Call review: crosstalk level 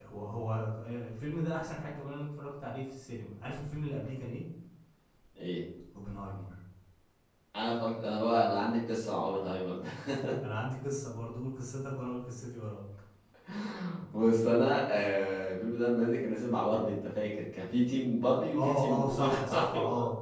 present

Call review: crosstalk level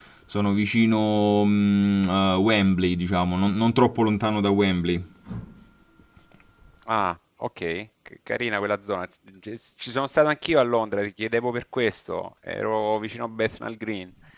none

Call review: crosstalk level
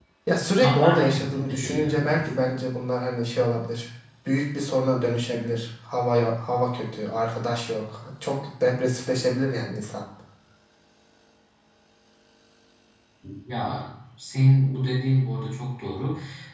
present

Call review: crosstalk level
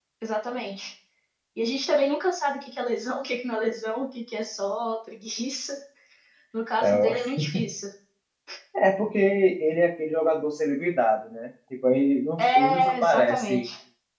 present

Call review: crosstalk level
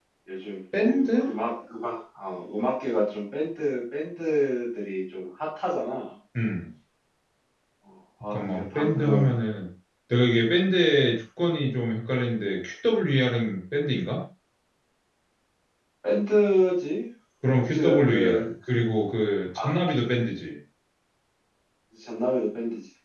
present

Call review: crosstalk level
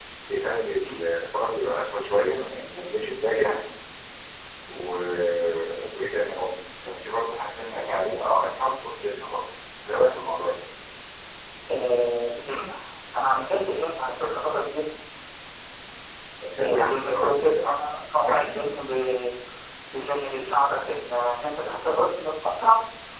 present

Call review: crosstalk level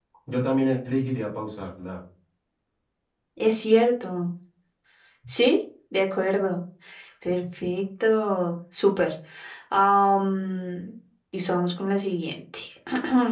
none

